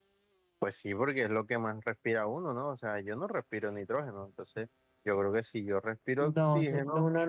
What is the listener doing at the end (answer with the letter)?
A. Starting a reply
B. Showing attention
A